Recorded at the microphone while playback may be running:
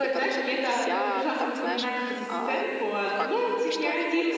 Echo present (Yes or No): Yes